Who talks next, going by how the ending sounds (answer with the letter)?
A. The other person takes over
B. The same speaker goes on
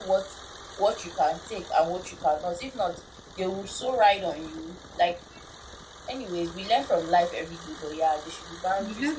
A